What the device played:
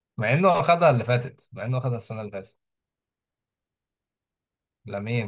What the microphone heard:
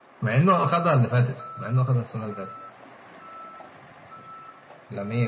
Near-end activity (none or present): none